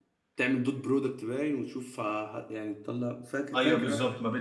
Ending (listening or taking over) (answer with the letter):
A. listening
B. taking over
B